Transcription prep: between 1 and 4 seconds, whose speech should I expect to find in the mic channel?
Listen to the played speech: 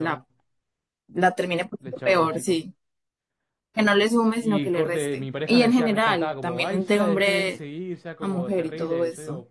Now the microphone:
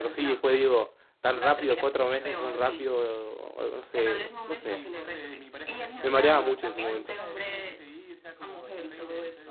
both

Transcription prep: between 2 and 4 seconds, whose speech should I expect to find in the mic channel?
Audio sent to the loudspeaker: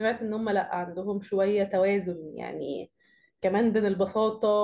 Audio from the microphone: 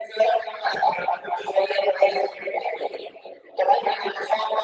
echo only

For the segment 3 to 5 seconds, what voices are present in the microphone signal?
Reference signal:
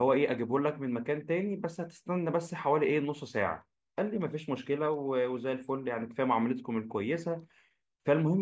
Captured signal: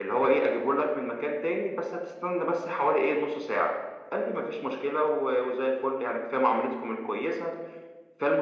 echo only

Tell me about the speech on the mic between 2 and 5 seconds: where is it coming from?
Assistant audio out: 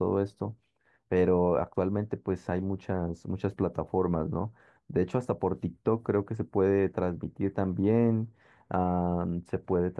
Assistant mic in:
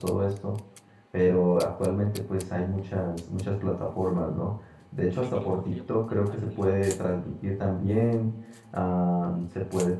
echo only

